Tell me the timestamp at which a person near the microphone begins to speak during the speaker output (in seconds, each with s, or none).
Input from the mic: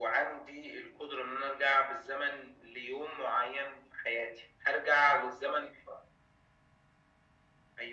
none